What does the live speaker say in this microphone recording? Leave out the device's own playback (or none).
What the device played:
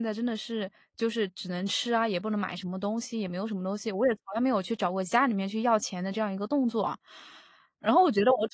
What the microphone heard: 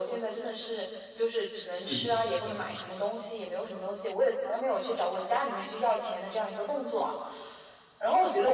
是的。